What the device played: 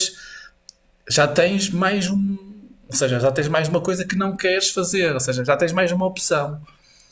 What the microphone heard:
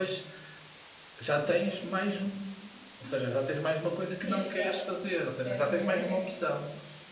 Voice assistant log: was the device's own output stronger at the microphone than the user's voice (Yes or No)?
Yes